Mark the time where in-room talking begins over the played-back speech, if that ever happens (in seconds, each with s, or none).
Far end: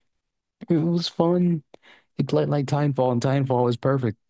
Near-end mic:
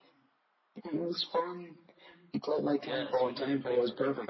2.8 s